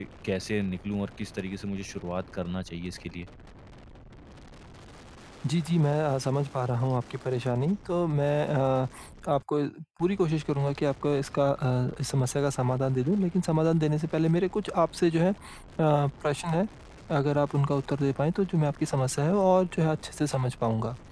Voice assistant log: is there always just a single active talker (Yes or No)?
Yes